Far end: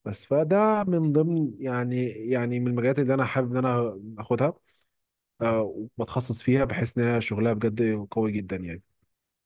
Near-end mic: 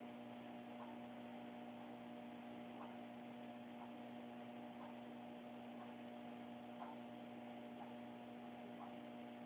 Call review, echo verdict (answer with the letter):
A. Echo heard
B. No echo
B